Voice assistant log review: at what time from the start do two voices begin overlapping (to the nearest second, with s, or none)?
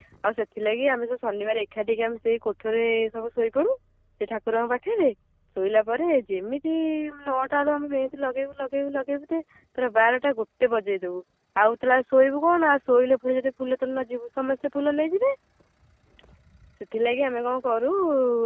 none